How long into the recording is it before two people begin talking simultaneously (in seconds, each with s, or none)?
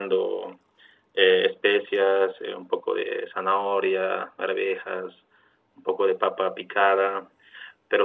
none